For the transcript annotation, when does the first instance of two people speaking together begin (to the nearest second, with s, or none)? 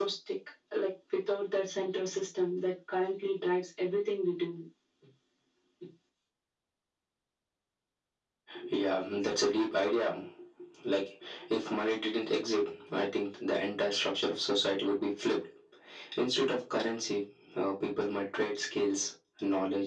none